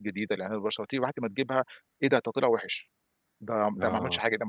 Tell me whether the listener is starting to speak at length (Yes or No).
No